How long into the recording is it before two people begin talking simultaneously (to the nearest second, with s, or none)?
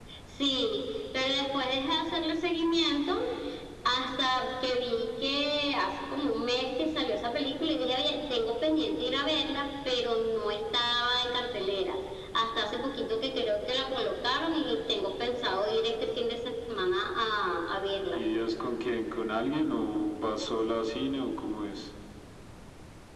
none